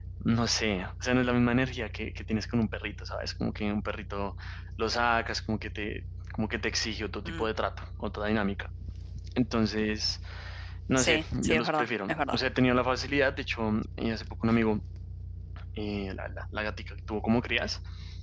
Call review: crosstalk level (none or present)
present